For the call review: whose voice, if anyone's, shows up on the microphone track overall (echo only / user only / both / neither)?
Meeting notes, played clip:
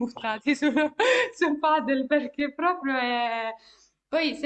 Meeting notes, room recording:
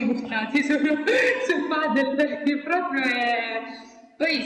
echo only